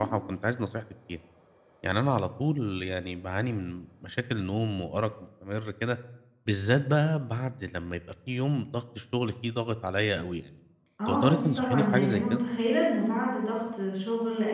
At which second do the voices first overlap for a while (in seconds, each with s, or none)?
11.1 s